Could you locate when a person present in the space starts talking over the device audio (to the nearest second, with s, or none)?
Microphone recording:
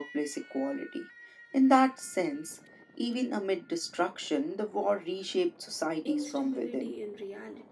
6 s